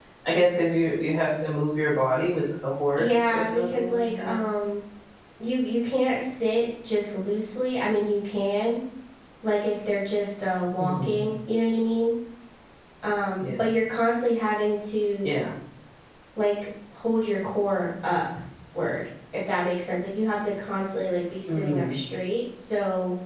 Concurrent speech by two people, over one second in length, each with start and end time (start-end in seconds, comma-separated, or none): 2.9-4.4